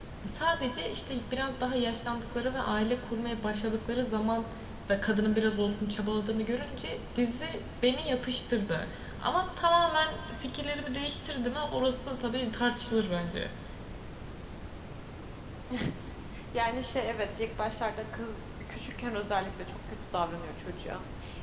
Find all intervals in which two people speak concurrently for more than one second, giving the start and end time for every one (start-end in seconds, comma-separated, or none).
none